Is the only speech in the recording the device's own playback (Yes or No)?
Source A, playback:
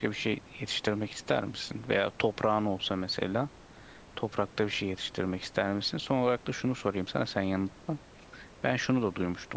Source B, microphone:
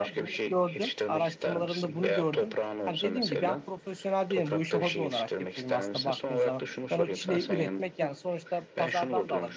No